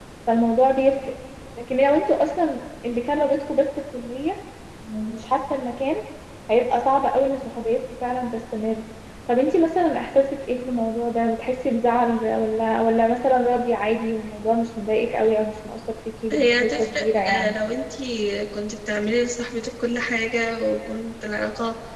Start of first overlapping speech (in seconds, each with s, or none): 16.3 s